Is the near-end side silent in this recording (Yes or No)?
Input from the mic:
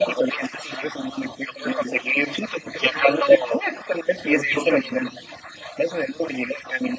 Yes